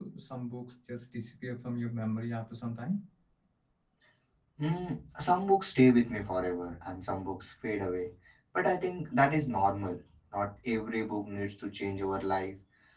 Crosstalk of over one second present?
No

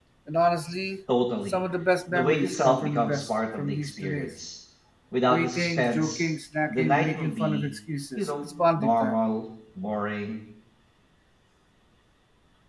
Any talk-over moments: Yes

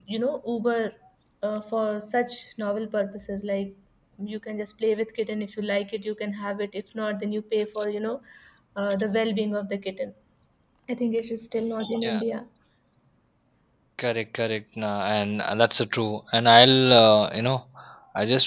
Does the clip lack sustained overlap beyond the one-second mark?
Yes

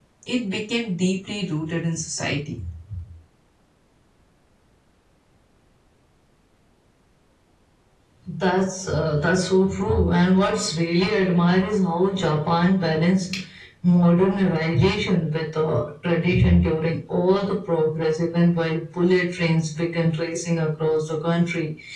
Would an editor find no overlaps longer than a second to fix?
Yes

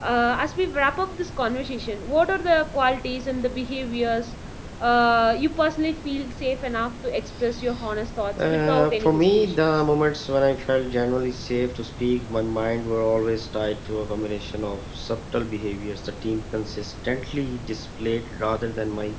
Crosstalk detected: Yes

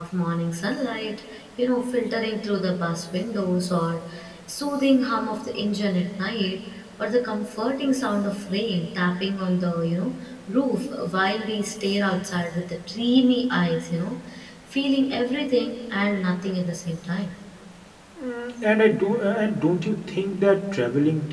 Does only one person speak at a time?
Yes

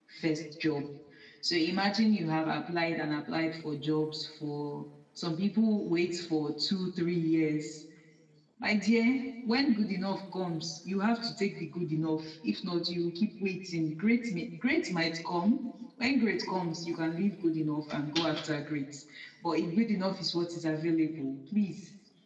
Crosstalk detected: No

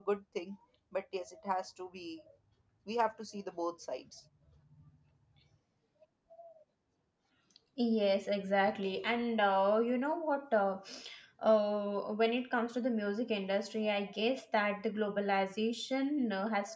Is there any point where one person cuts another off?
No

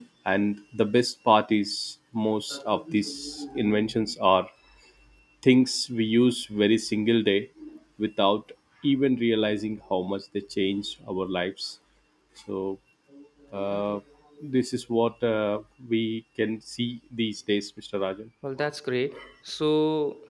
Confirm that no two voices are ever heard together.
Yes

